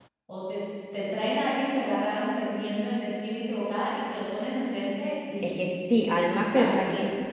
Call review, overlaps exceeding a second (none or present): none